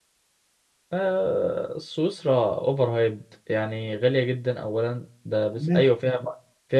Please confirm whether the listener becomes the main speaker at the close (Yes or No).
No